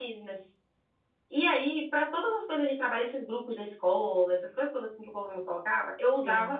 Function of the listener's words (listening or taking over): listening